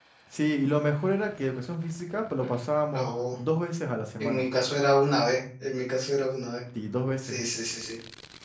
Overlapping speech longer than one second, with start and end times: none

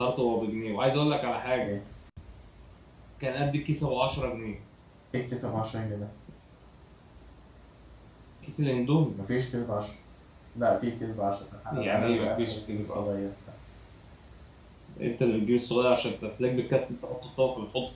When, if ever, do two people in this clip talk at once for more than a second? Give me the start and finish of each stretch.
11.7-13.0

